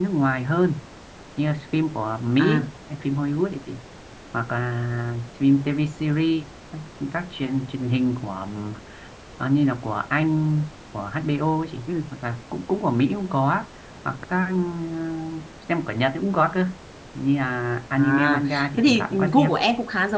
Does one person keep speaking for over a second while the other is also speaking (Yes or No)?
Yes